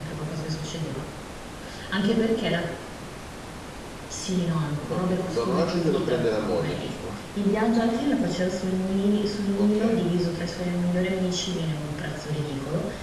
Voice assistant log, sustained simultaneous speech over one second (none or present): present